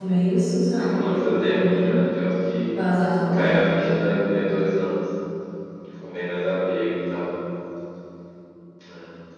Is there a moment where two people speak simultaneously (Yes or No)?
Yes